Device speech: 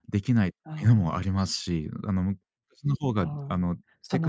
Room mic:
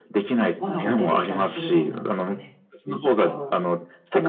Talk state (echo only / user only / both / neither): both